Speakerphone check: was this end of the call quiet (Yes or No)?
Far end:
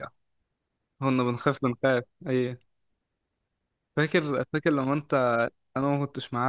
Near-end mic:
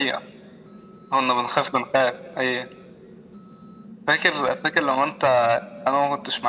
Yes